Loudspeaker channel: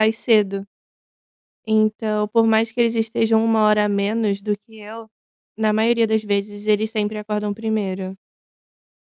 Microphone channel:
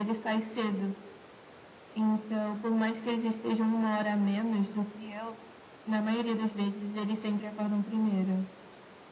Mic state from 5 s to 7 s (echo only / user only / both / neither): echo only